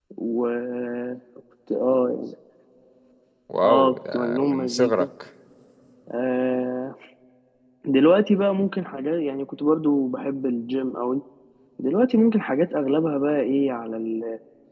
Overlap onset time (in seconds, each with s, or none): 3.6 s